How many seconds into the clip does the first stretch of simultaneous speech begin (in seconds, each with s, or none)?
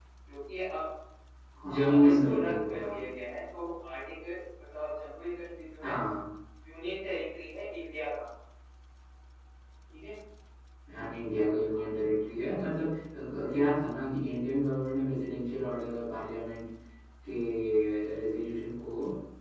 1.7 s